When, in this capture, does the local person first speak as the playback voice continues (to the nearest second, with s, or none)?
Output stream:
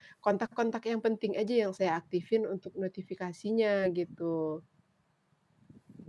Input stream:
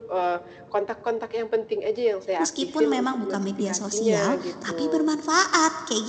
2 s